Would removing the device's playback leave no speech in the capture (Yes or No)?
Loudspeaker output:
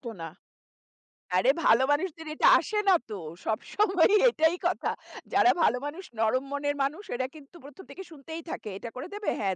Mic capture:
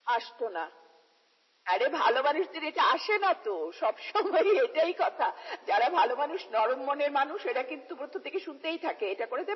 Yes